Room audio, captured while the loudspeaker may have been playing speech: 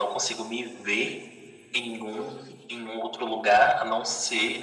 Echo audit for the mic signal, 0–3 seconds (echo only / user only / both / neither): echo only